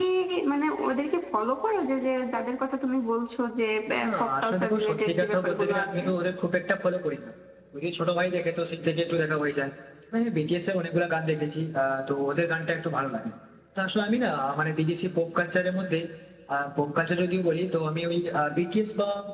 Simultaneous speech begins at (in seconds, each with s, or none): 4.2 s